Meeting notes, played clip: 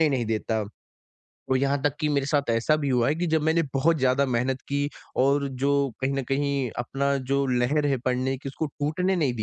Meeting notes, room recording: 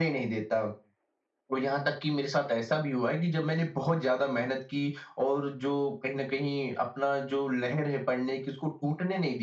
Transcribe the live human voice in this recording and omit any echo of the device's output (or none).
none